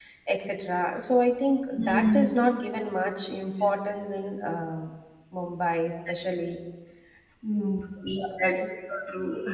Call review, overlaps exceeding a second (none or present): none